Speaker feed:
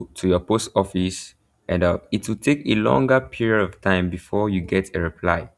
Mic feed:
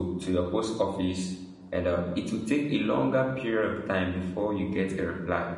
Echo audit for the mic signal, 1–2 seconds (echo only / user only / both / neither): echo only